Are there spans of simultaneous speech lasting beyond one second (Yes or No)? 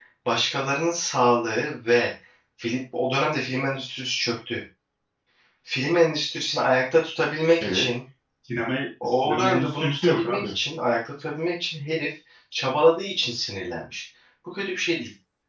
Yes